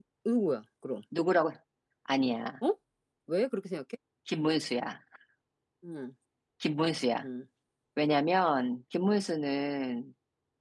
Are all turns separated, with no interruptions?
Yes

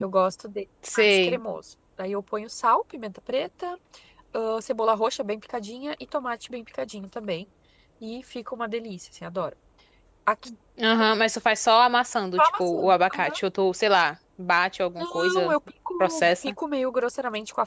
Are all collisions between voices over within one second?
Yes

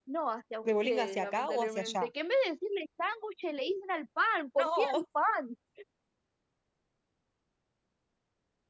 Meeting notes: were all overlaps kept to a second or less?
No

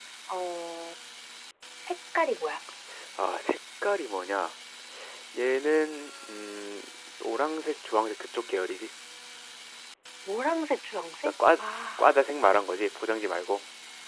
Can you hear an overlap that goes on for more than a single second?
No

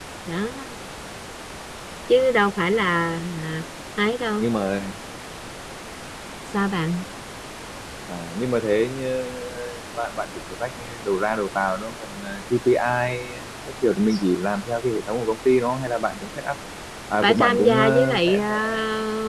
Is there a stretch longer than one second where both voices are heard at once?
Yes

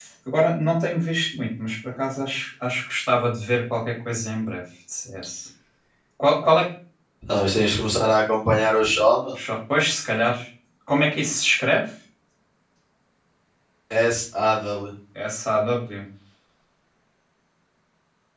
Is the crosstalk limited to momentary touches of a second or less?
Yes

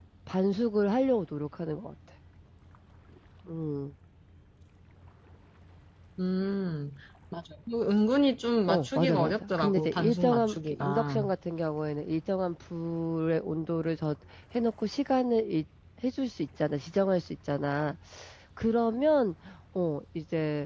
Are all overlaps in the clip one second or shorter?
No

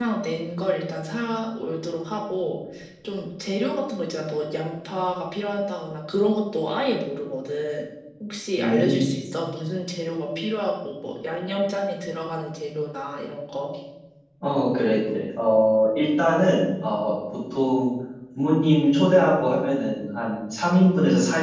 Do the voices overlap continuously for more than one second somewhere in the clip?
No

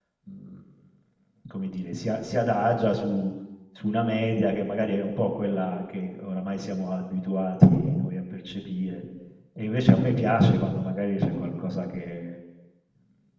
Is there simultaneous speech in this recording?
No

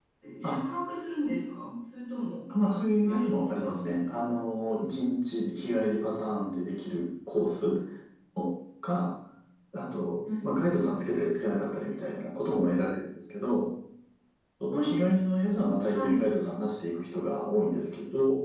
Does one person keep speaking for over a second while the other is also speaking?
Yes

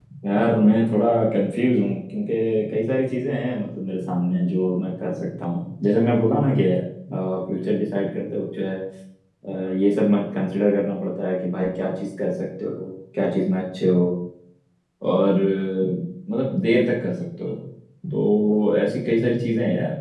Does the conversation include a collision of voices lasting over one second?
No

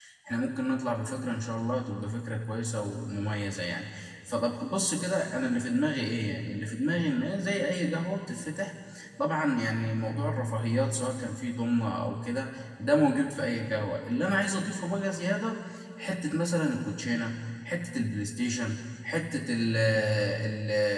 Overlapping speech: No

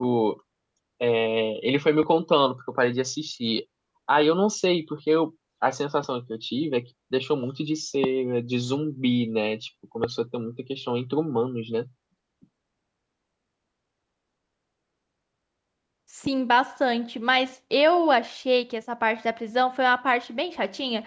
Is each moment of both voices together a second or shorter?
Yes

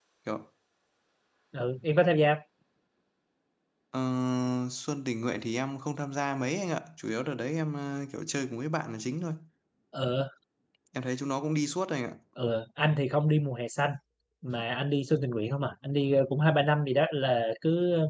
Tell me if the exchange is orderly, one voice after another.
Yes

